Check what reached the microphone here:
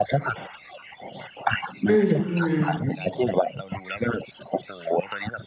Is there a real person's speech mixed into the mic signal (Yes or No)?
Yes